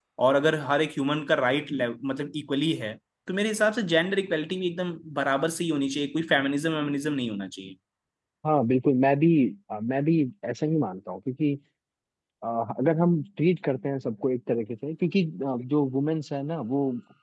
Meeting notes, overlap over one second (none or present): none